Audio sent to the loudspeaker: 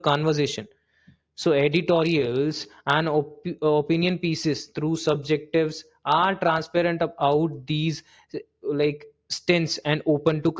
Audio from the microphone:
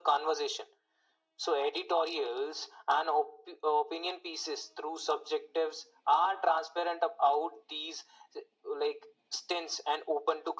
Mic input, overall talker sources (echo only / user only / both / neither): echo only